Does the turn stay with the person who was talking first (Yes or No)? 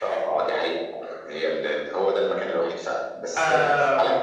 Yes